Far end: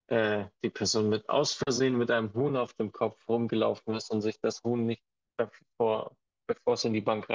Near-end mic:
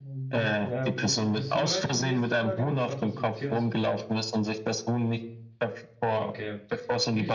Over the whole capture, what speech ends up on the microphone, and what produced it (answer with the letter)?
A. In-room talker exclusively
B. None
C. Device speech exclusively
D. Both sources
D